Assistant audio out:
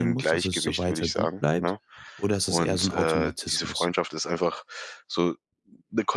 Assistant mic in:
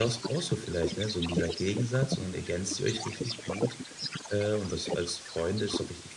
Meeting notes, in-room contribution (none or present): present